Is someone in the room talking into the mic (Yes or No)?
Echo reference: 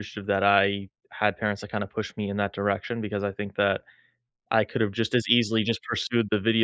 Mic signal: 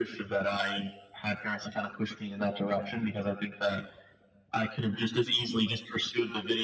No